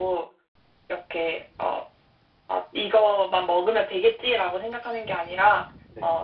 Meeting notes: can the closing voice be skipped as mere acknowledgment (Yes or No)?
Yes